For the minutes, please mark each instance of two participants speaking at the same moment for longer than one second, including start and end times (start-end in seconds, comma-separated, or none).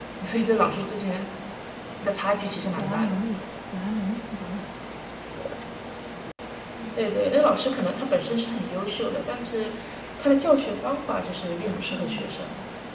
none